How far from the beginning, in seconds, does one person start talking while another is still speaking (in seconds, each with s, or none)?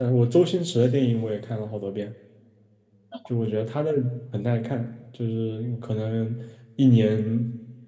none